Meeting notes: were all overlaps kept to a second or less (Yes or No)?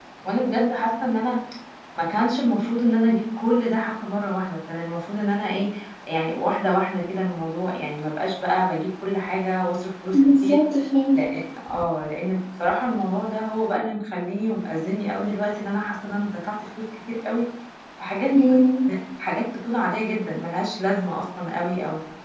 Yes